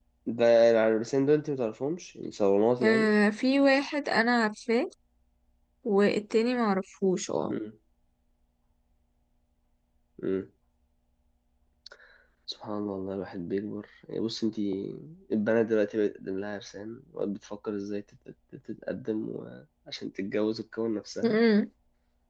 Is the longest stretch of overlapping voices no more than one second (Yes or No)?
Yes